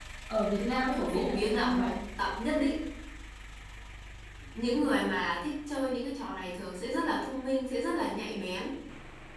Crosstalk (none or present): present